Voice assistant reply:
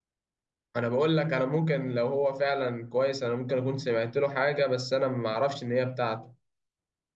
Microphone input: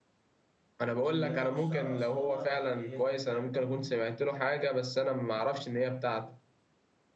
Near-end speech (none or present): present